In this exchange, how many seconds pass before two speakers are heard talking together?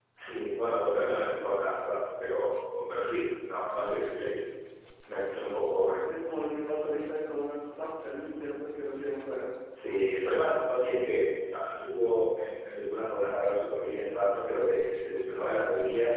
none

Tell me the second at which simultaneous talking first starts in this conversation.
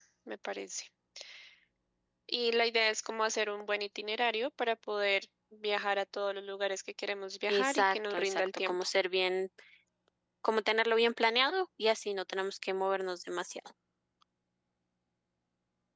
7.5 s

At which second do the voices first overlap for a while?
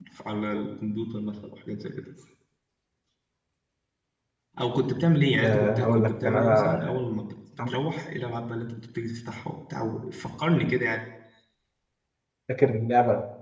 5.4 s

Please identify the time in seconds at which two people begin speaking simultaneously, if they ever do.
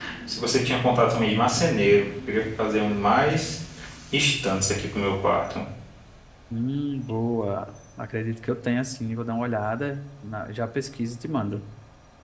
none

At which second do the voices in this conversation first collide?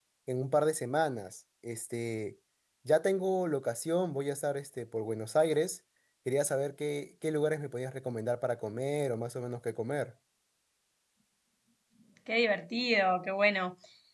none

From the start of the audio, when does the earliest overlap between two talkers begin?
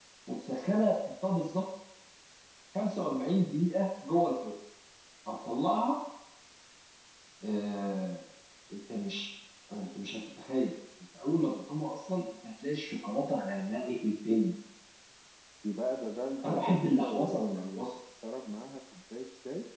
16.4 s

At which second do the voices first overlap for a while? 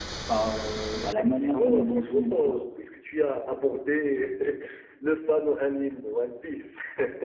1.2 s

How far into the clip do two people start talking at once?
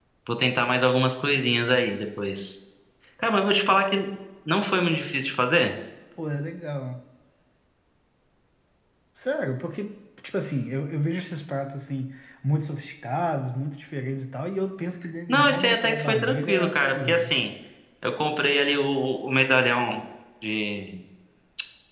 15.3 s

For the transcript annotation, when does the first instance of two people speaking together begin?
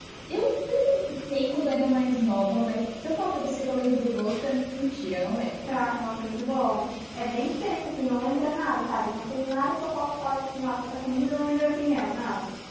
none

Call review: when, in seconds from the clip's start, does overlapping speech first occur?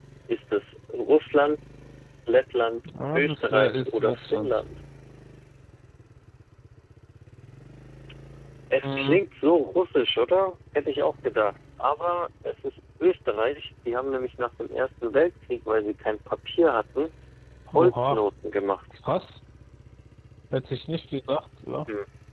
2.9 s

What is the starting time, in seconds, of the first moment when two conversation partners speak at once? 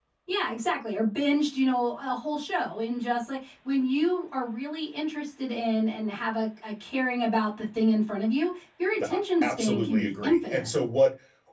9.0 s

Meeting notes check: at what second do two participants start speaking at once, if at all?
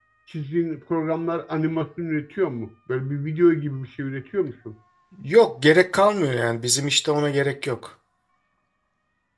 none

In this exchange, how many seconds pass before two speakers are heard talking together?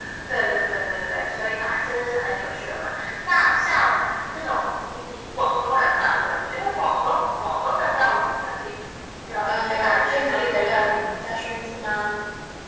9.4 s

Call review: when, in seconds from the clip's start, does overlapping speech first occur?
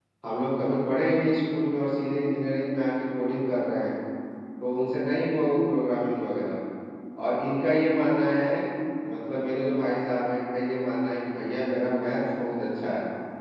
none

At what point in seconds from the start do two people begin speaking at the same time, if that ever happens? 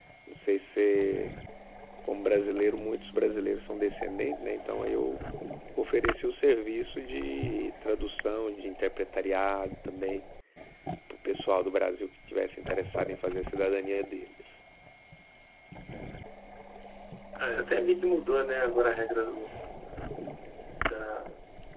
none

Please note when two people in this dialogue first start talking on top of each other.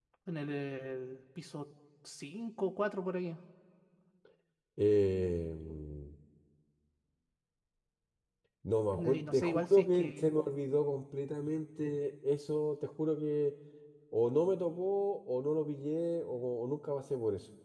8.9 s

